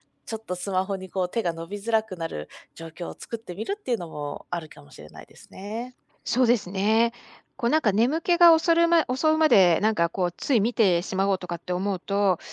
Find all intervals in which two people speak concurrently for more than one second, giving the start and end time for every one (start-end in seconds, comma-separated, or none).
none